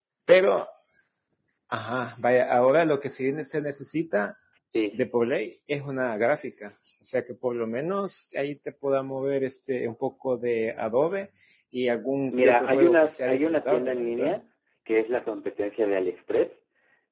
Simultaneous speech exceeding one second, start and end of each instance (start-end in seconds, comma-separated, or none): 12.3-14.3